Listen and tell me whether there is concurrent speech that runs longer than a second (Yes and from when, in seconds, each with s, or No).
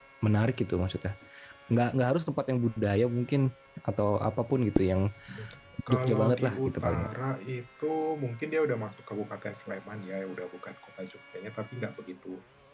Yes, from 5.9 s